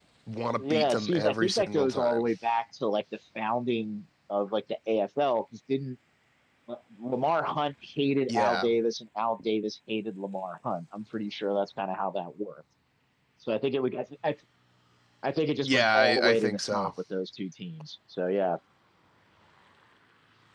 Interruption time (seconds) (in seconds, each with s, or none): 0.6 s